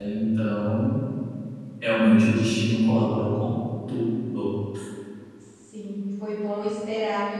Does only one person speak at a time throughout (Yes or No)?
Yes